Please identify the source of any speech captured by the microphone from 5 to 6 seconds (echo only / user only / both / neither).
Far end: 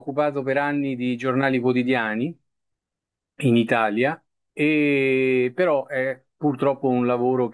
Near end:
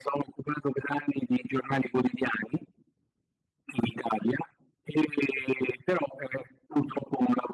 echo only